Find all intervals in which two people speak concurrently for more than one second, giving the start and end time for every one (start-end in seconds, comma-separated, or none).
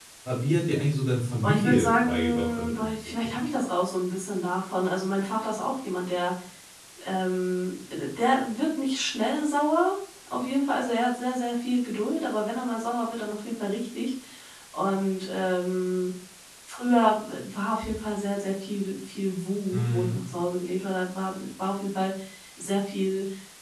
1.4-3.4